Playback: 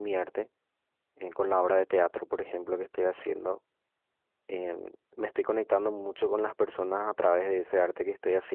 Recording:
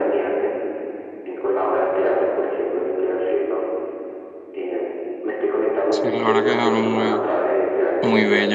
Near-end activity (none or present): present